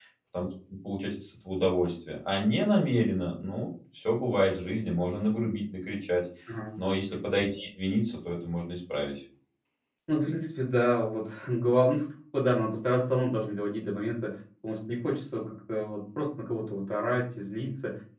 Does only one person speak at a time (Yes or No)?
Yes